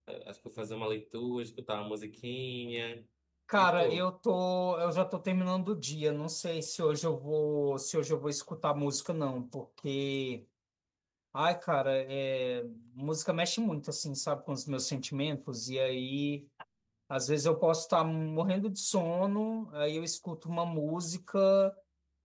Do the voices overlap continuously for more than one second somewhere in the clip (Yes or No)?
No